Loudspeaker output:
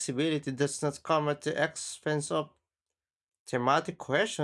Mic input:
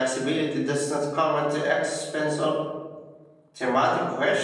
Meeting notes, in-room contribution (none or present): none